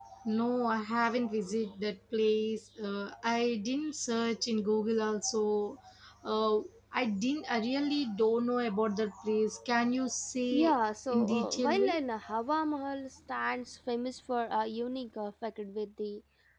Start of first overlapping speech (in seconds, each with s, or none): 10.5 s